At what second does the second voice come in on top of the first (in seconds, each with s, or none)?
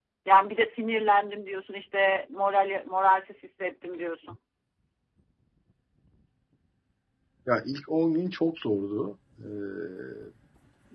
none